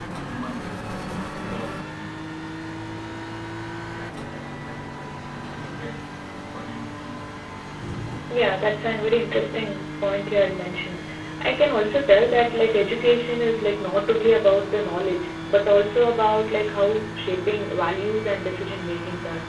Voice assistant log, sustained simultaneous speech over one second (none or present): none